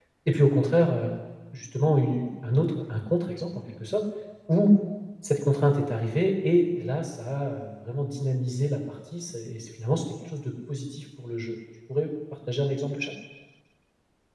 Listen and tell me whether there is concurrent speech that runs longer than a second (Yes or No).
No